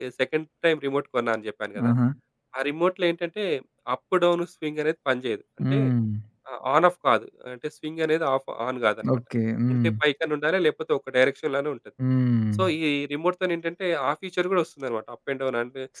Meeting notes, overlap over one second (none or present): none